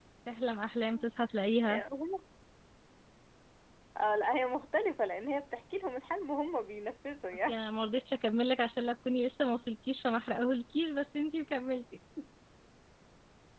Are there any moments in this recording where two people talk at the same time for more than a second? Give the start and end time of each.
none

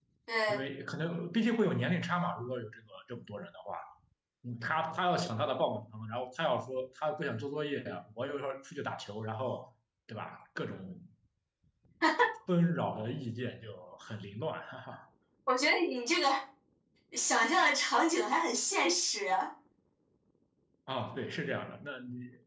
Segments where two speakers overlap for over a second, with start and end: none

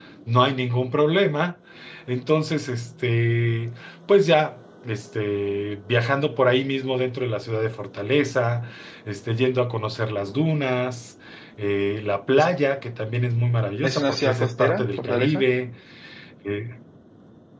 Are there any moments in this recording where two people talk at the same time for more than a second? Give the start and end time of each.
13.8-15.4

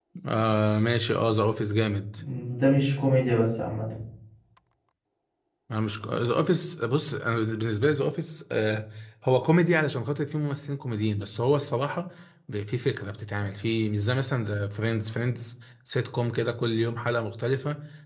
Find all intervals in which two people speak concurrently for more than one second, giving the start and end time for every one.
none

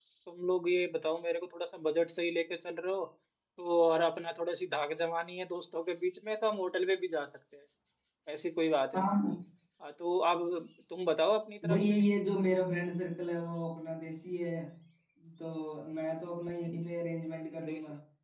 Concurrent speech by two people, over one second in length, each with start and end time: none

